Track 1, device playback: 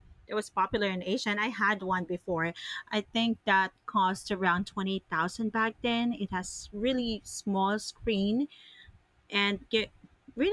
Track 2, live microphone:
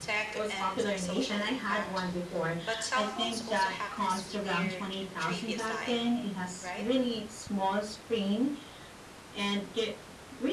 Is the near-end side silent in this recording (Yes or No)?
No